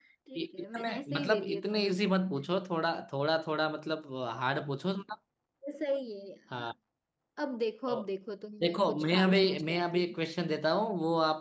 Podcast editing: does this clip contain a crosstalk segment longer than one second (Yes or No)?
Yes